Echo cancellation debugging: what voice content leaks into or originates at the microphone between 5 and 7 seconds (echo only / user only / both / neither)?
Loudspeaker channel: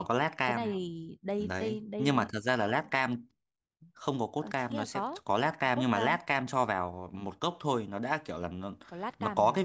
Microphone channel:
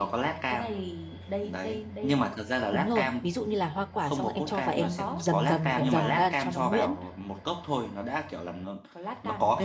both